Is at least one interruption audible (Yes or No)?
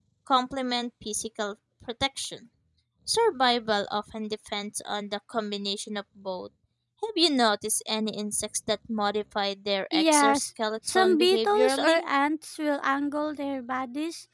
Yes